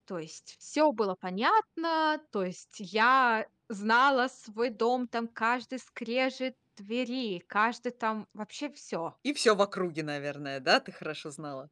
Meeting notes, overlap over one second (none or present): none